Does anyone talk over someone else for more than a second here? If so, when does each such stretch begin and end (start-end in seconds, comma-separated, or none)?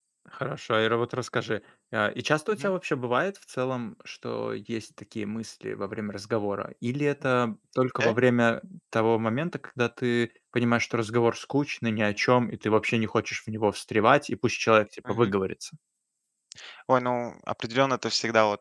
none